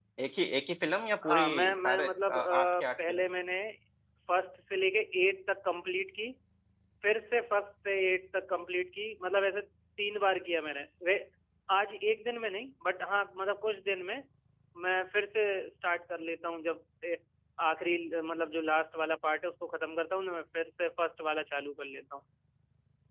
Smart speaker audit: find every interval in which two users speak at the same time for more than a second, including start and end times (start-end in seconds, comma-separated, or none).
1.2-3.2